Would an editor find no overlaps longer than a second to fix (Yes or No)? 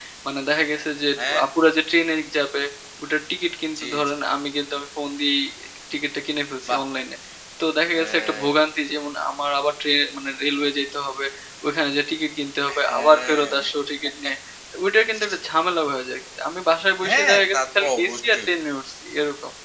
No